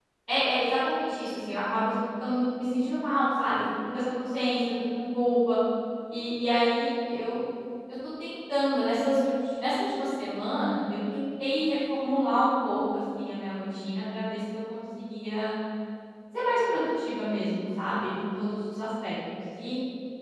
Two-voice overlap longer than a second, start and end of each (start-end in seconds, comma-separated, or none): none